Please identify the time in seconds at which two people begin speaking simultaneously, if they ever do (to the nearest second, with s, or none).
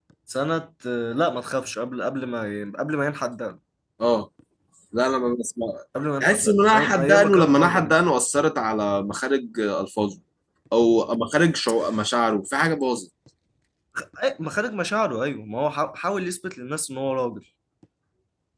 6 s